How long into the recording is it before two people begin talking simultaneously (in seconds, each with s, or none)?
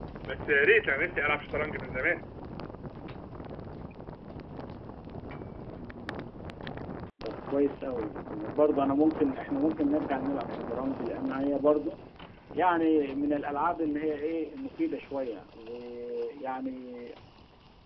none